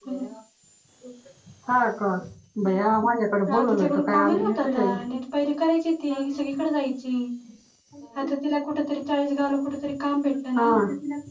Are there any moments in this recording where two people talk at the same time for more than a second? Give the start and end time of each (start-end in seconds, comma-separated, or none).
3.5-4.9